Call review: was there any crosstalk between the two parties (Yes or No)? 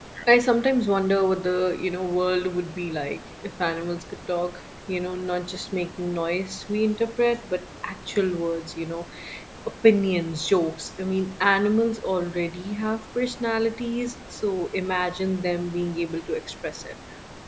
No